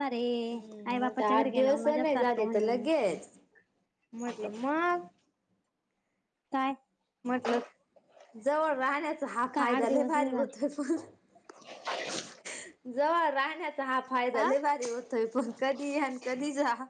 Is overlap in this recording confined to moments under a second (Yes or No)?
No